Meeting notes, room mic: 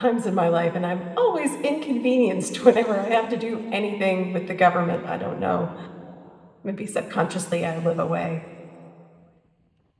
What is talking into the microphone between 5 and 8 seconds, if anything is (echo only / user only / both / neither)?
user only